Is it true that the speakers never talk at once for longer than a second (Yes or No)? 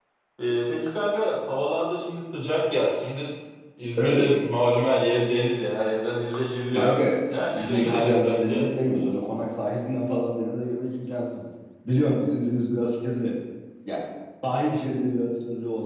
No